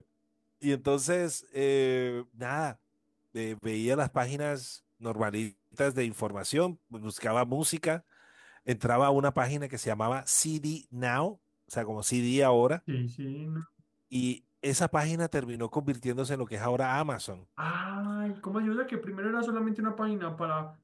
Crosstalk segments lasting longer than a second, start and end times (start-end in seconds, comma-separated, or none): none